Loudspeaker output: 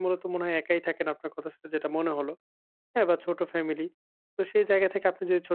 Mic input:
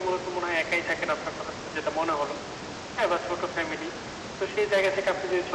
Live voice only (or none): none